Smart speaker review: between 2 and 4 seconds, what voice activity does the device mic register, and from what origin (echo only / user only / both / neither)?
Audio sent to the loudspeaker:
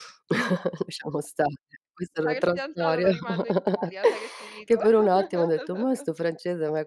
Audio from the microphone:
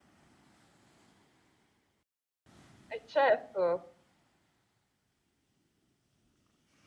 user only